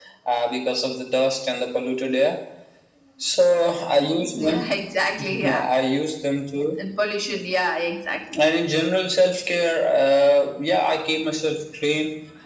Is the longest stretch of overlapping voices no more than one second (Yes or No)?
Yes